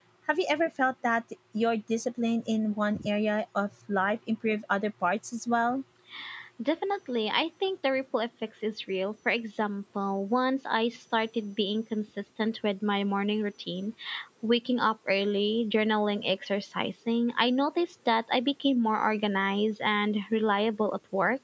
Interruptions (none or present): none